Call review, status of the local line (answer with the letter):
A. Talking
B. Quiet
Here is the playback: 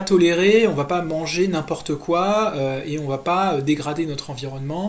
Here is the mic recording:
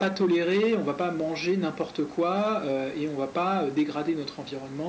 B